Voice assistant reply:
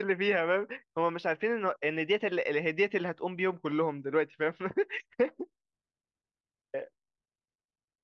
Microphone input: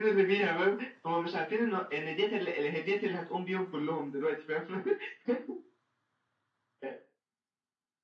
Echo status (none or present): present